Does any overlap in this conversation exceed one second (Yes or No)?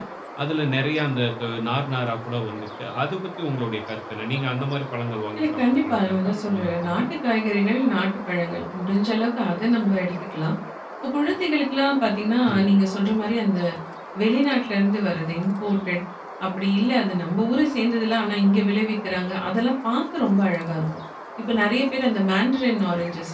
Yes